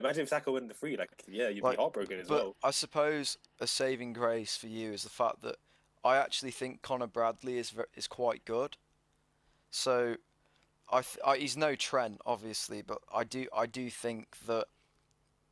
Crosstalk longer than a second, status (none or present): none